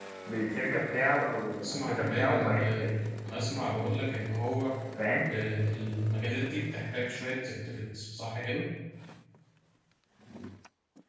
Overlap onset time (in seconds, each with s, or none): 1.6 s